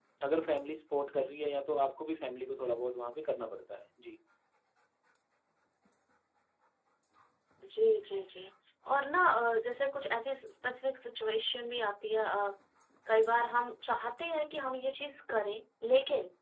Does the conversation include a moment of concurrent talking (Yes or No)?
No